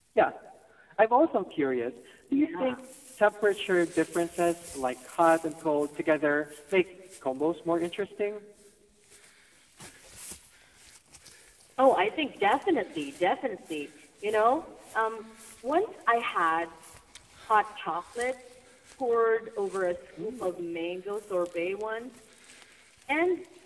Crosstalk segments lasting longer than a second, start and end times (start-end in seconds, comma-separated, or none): none